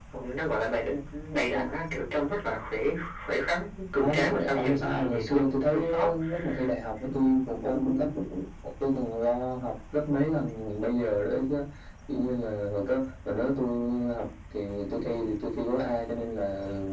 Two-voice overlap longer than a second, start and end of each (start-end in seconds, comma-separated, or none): 4.0-6.1